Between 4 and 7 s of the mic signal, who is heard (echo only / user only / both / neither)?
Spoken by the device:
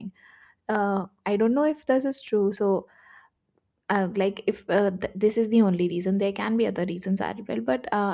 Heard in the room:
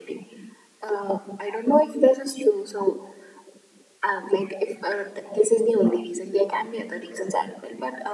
echo only